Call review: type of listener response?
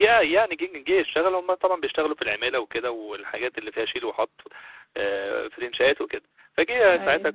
listening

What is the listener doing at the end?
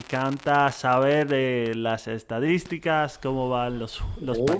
listening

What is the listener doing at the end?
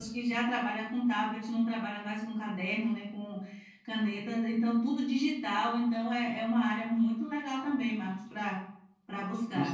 taking over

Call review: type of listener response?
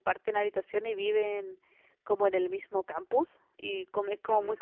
listening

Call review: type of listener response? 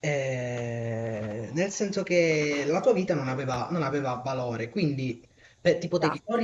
listening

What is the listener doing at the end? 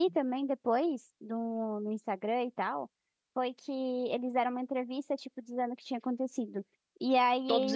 listening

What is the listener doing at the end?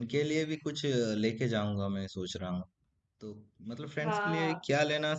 listening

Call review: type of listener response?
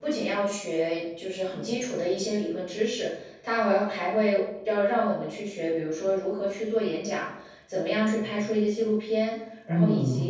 listening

